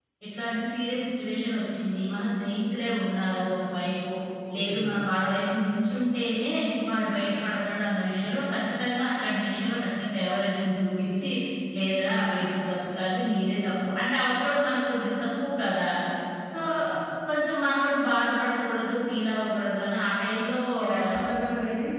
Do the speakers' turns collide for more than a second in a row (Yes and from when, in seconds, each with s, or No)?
No